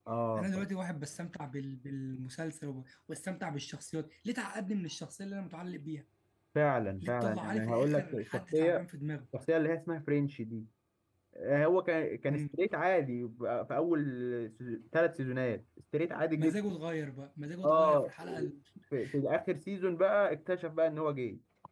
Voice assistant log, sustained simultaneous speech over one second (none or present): present